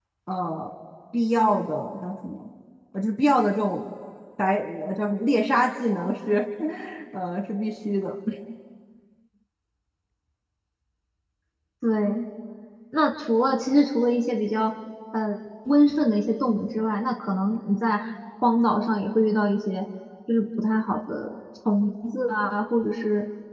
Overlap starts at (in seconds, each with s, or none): none